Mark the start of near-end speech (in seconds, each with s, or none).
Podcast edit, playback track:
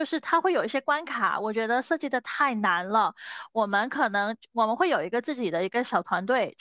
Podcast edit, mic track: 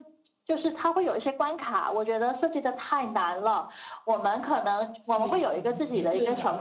5.0 s